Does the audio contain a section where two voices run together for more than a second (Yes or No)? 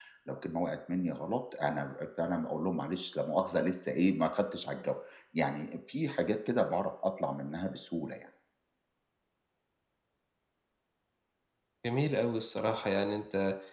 No